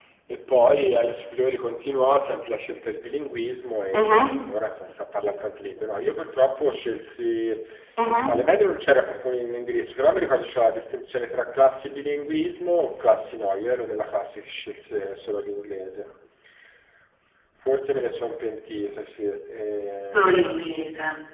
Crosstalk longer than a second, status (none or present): none